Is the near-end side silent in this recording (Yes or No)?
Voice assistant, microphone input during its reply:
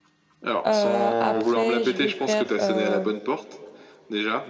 No